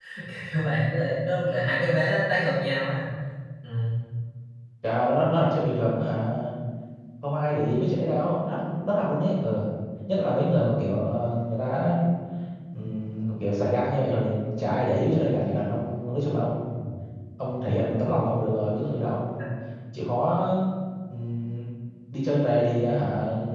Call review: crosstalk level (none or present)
none